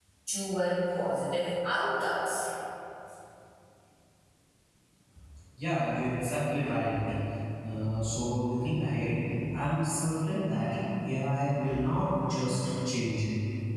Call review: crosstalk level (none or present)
none